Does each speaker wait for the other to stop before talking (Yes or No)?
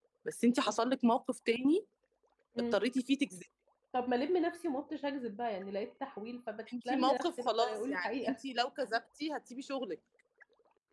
No